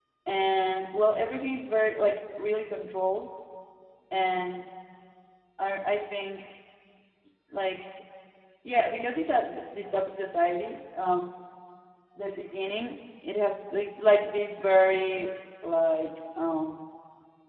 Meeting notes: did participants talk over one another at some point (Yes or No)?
No